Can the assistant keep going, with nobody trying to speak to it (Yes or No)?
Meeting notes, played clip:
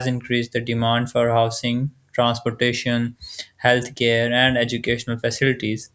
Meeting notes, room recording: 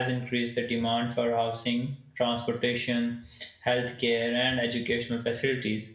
Yes